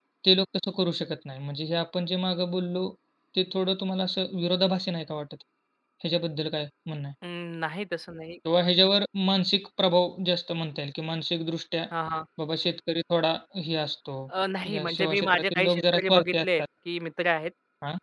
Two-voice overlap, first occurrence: 14.7 s

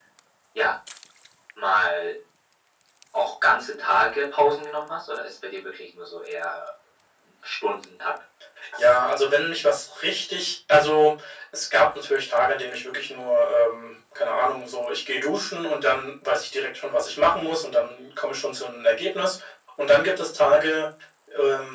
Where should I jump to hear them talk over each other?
none

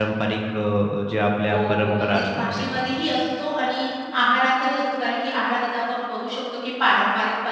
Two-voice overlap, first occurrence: 1.5 s

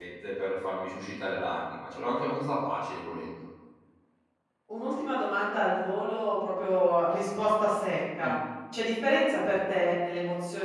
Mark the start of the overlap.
none

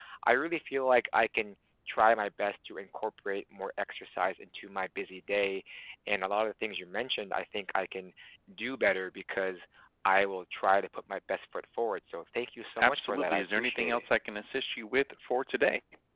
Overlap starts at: 12.8 s

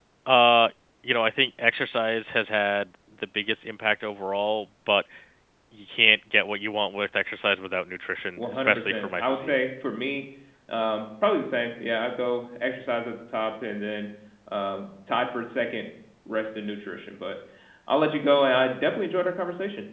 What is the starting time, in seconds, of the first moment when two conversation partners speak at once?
8.4 s

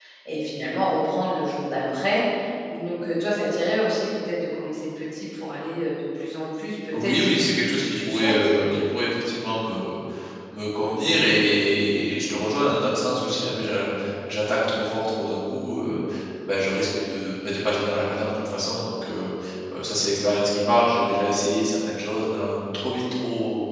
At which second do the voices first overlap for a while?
6.9 s

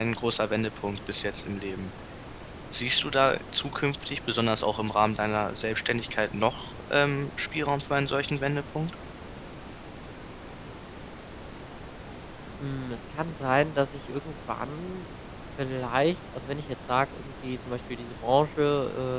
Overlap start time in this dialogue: none

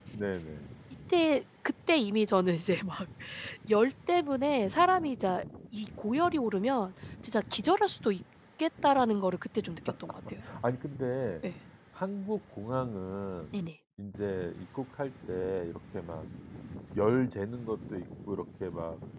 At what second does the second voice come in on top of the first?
none

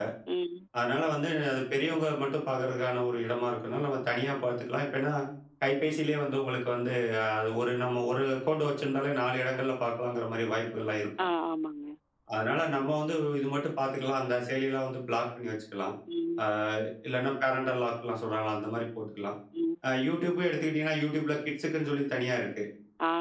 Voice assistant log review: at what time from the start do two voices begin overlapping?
none

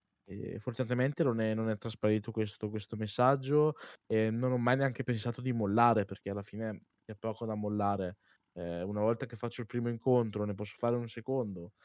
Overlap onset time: none

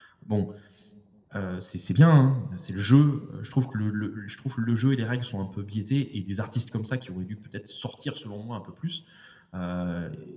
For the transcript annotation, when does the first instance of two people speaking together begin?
none

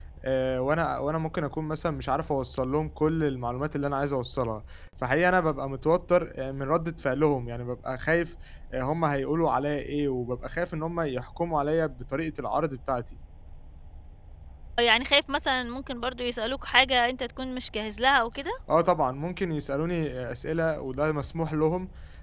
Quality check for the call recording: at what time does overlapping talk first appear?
none

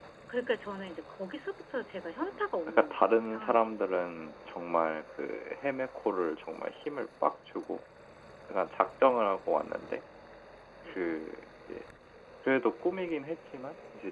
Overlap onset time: 2.3 s

